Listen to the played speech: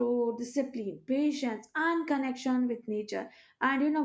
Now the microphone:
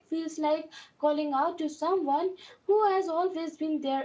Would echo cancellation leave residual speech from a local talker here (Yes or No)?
Yes